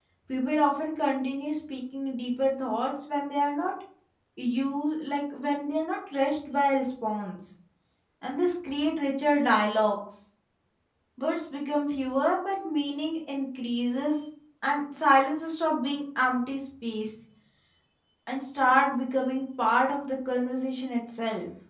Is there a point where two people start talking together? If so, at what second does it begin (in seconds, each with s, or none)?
none